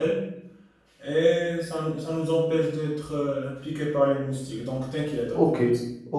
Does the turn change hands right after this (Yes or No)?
Yes